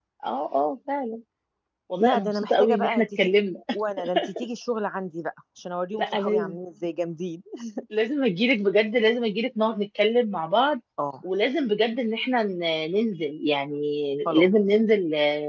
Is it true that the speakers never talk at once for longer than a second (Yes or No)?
No